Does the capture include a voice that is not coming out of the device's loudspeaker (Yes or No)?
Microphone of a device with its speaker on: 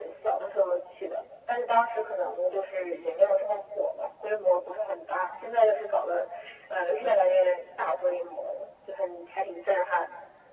No